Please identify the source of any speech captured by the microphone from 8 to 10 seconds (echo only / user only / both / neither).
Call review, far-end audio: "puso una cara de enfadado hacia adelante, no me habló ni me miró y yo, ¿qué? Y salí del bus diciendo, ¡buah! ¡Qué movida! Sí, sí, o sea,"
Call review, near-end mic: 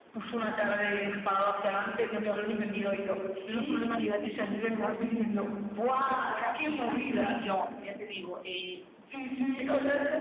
both